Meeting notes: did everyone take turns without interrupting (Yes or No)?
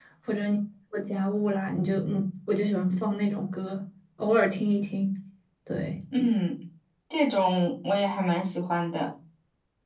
Yes